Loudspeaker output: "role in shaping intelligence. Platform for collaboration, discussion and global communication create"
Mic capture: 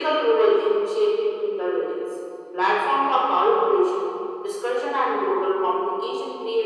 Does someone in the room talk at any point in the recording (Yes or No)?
No